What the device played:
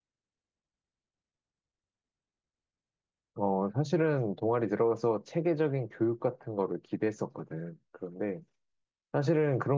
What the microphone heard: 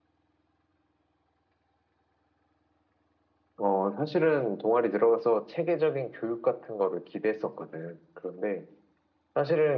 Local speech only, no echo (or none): none